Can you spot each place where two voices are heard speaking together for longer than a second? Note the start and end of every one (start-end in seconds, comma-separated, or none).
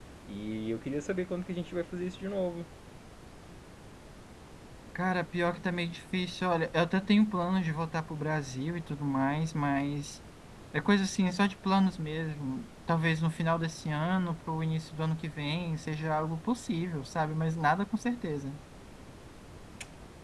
none